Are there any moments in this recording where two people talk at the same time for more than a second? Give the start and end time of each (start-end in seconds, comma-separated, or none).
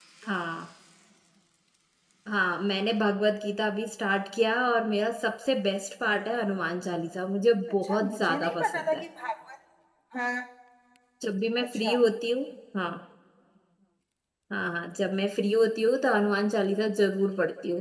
7.8-9.0